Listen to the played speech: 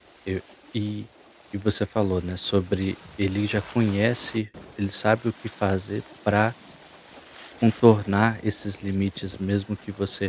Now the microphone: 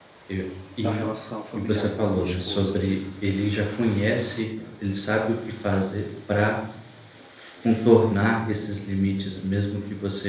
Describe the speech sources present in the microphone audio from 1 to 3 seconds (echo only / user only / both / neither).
both